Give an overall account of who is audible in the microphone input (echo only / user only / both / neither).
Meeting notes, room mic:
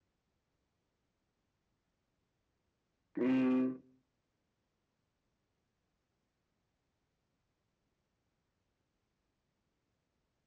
user only